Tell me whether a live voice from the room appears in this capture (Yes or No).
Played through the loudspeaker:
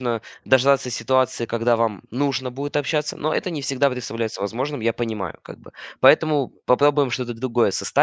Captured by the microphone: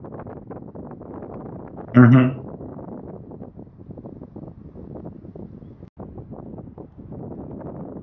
Yes